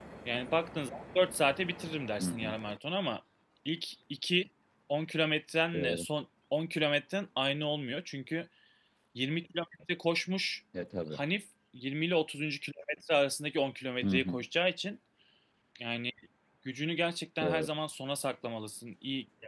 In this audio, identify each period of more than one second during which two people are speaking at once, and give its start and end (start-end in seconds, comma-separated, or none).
none